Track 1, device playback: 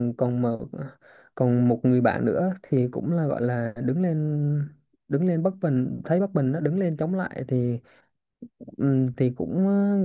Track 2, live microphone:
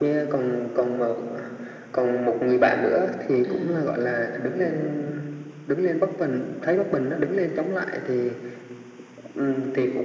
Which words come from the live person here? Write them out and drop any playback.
À.

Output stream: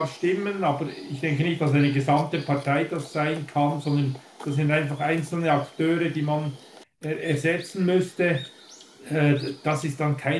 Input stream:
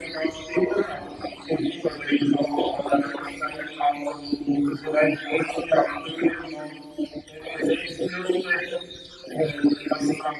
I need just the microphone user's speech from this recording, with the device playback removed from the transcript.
none

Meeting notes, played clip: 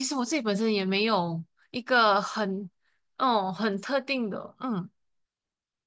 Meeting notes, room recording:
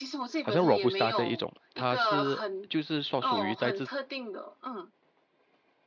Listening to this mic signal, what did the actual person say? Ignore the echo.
好像 Robusta 这一种，它是就是说属于在这

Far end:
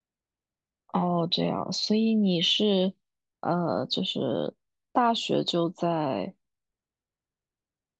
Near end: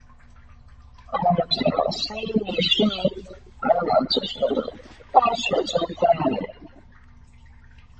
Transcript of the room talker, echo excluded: none

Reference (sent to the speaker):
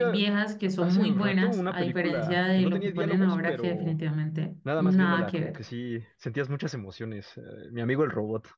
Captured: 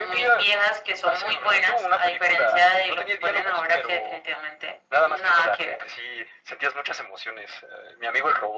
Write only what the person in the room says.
none

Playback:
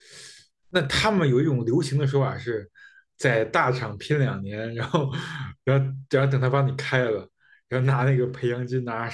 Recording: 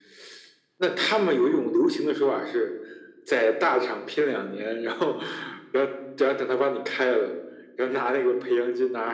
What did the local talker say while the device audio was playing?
none

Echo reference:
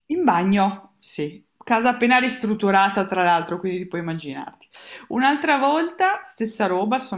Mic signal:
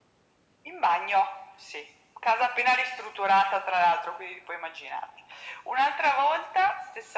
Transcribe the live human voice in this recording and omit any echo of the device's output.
none

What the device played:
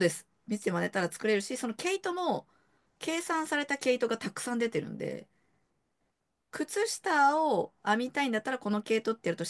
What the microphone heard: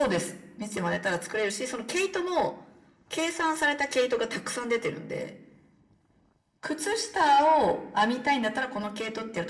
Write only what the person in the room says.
none

